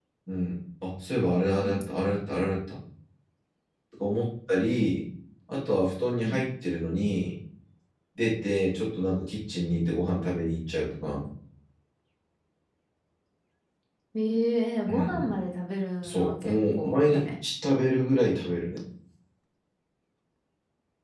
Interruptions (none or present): present